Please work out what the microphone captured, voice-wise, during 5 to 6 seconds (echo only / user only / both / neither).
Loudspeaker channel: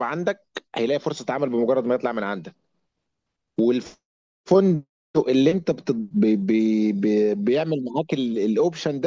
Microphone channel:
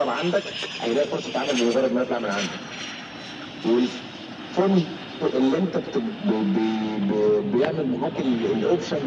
echo only